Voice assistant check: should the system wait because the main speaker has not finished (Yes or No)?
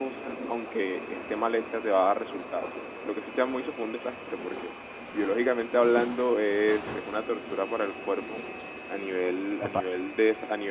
Yes